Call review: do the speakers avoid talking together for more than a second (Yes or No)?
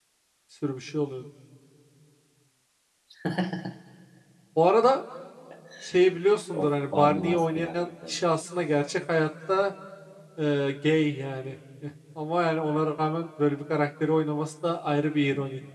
No